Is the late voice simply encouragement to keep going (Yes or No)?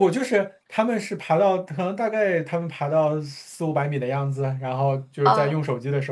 Yes